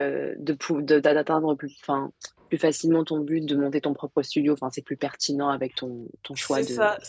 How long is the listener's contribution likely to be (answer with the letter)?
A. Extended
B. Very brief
A